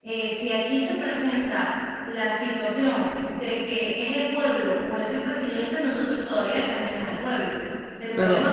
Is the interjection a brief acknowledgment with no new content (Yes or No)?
Yes